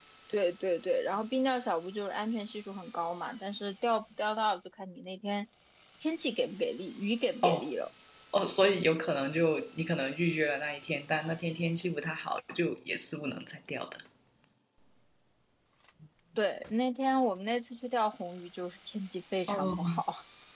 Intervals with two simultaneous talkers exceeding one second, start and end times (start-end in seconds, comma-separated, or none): none